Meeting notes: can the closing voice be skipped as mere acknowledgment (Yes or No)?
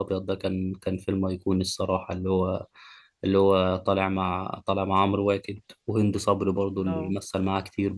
Yes